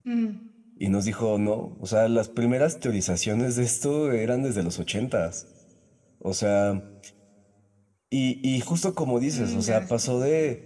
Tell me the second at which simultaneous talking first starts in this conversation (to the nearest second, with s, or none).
9 s